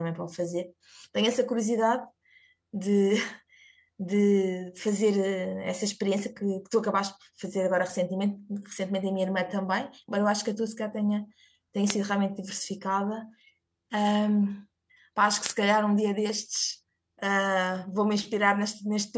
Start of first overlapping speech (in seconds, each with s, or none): none